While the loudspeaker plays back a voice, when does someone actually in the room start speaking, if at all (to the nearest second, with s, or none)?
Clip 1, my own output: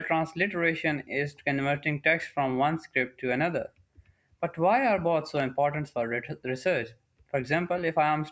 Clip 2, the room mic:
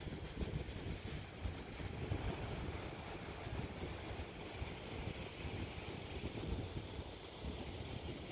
none